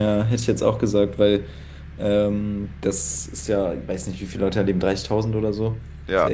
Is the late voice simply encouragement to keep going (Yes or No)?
Yes